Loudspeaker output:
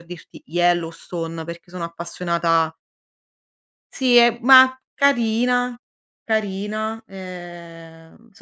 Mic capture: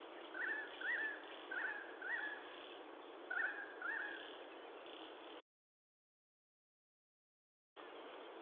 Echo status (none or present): none